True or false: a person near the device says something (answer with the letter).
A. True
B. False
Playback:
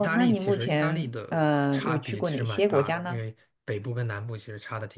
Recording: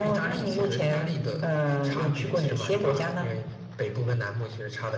B